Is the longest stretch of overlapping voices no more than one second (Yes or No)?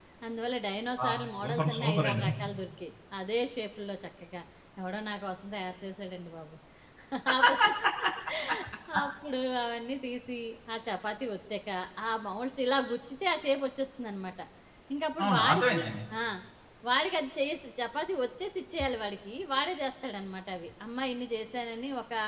No